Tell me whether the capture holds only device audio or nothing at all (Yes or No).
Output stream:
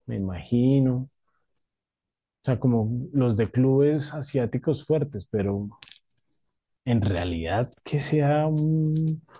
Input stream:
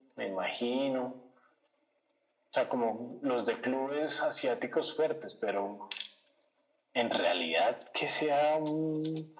Yes